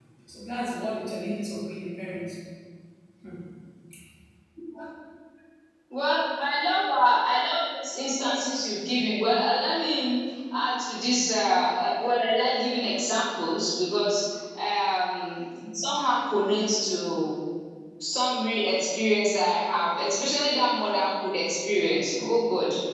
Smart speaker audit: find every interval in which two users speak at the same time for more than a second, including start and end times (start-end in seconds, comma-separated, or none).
none